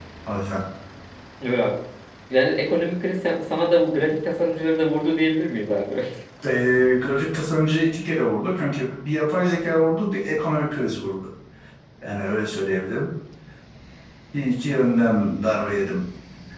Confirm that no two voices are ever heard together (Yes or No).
Yes